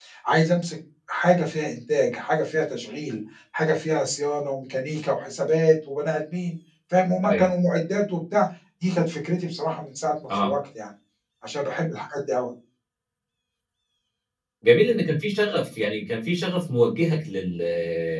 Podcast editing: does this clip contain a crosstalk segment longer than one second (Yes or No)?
No